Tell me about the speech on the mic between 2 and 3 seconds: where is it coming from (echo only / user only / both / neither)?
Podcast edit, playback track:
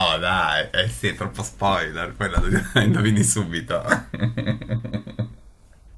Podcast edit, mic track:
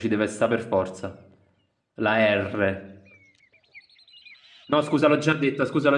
user only